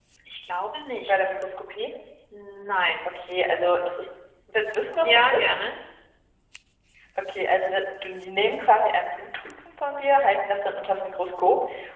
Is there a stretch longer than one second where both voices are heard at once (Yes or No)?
No